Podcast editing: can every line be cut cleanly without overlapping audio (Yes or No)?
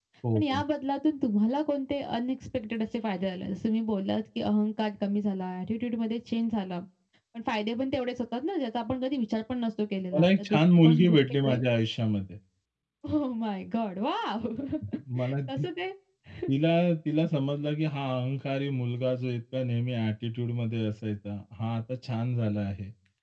No